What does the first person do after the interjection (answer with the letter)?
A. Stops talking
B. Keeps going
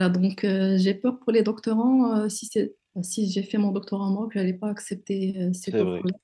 A